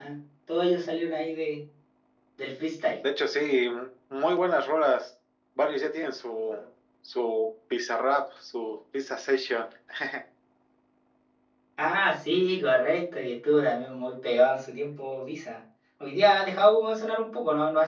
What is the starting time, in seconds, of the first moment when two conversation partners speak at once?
none

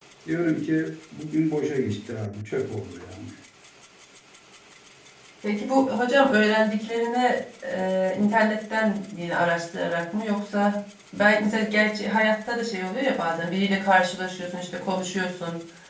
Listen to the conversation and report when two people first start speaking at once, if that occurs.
none

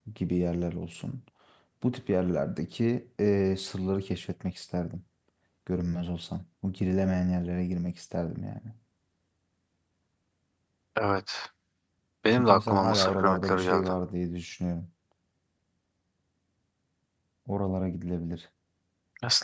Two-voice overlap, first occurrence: 12.3 s

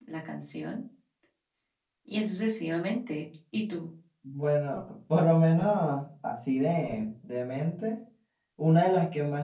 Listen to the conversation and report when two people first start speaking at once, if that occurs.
none

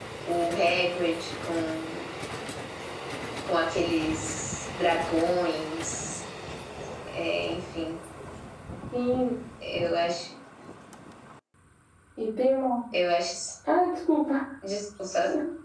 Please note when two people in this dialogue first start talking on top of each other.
none

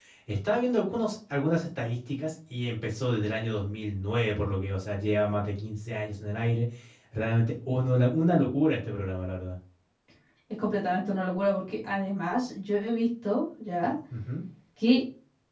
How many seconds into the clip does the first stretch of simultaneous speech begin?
none

